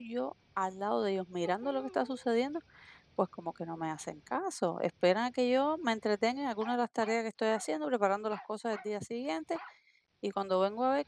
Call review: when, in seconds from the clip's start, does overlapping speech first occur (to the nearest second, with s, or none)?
none